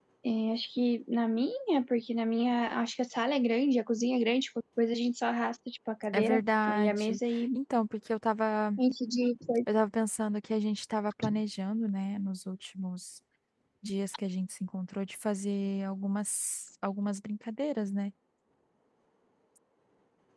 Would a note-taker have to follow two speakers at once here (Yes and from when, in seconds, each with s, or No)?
Yes, from 6.1 s